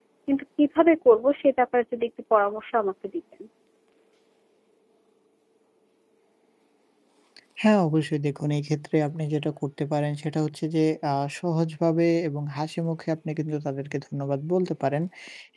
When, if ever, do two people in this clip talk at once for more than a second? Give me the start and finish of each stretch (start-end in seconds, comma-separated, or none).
none